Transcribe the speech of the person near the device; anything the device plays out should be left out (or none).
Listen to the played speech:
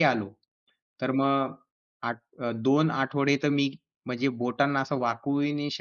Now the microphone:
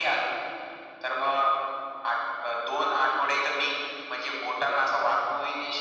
none